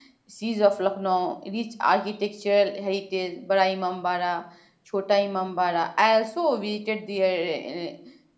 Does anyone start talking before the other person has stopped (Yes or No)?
No